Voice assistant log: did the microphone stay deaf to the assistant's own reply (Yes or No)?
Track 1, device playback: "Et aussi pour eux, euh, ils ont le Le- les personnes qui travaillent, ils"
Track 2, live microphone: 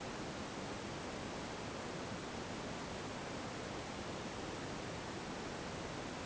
Yes